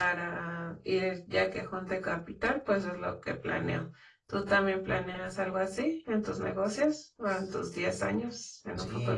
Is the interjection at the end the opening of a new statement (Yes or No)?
Yes